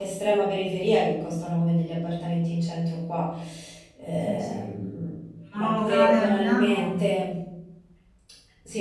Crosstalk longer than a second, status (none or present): present